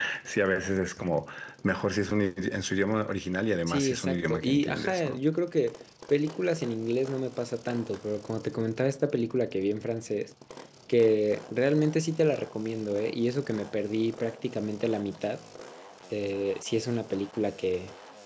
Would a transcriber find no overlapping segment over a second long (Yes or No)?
No